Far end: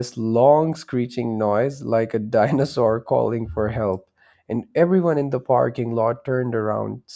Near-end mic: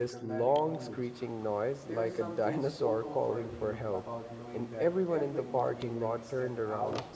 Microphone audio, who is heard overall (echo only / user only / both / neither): both